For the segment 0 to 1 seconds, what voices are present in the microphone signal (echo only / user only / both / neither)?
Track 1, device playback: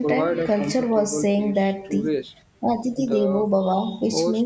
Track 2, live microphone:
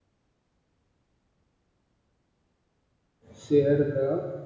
neither